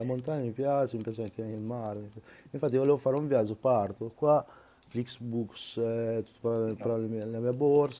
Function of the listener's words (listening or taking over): listening